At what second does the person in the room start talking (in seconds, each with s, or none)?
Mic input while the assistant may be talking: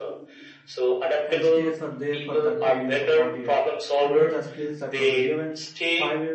1.2 s